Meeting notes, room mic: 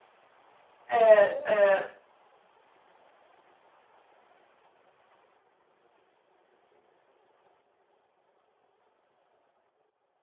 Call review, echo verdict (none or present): none